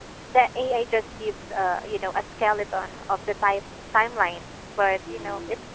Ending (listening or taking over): listening